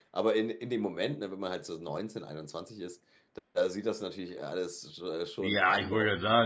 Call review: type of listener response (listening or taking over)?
taking over